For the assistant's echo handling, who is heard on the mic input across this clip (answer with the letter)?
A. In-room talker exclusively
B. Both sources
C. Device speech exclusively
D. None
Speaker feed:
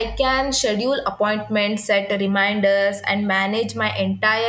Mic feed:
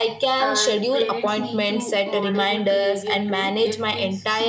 B